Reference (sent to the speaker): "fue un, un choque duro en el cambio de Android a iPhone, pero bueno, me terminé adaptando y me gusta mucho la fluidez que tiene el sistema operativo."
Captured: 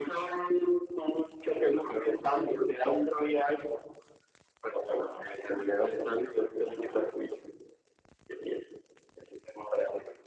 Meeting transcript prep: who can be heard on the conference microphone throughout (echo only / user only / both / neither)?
echo only